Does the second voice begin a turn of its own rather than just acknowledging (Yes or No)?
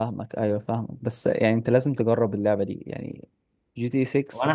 Yes